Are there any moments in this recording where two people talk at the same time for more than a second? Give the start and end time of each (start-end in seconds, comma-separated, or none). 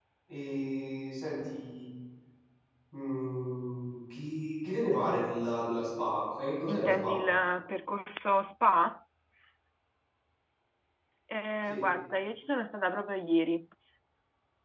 none